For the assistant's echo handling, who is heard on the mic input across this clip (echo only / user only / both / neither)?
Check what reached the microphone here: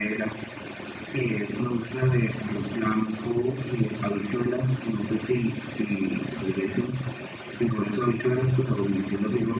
echo only